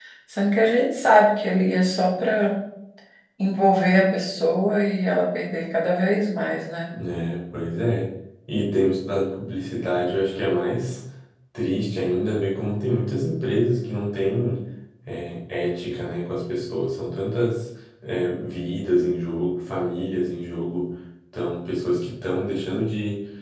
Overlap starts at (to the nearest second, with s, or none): none